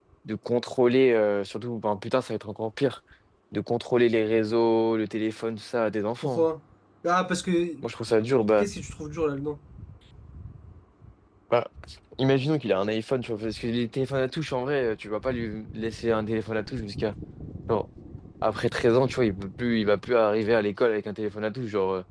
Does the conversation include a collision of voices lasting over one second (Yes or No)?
No